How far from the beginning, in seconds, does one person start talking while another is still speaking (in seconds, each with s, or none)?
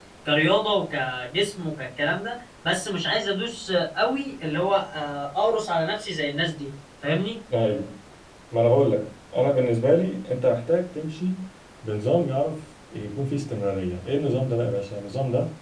none